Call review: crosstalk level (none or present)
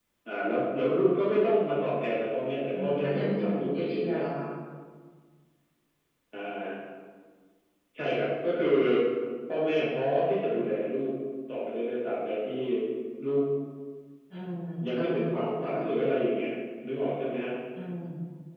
present